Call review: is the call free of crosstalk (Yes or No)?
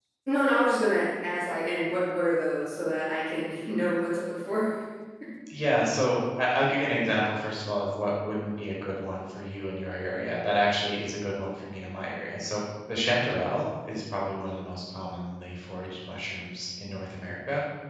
Yes